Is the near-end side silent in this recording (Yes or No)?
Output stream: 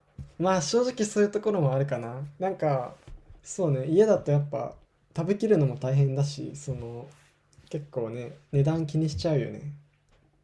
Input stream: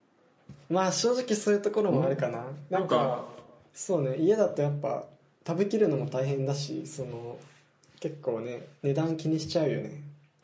No